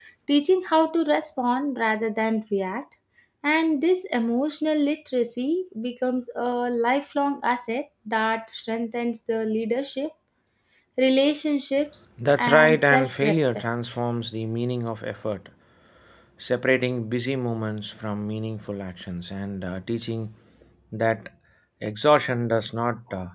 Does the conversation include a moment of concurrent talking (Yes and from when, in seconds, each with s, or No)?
Yes, from 12.2 s